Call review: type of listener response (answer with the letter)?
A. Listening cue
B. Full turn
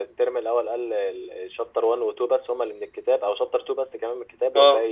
B